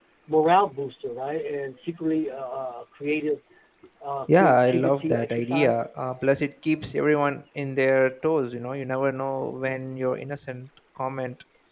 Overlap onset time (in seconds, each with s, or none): 4.3 s